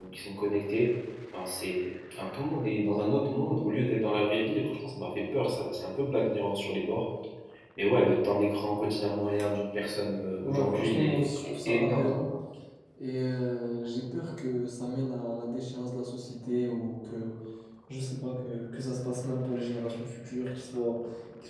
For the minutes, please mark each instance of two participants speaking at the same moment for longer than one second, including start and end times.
10.4-12.1

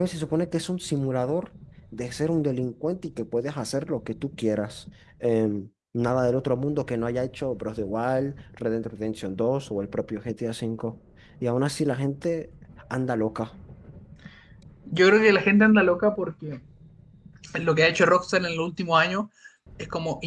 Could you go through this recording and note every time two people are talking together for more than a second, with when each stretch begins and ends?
none

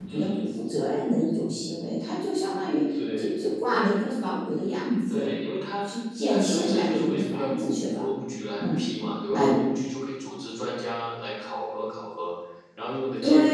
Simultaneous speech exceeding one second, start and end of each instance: 6.3-8.1

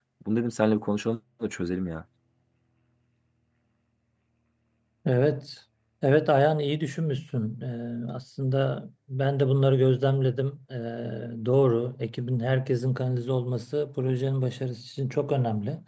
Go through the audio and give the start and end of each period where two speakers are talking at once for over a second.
none

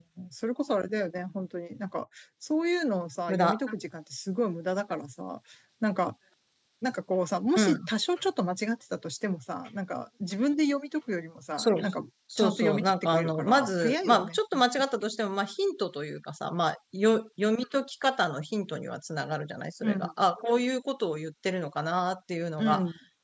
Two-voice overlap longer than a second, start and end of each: 12.4-14.4

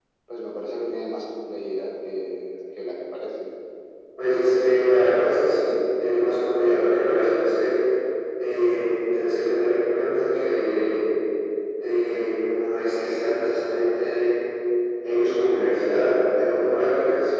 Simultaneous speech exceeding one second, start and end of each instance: none

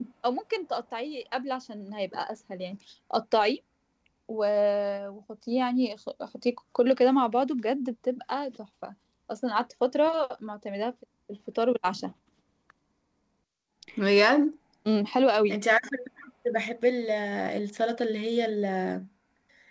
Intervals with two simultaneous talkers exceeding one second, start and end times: none

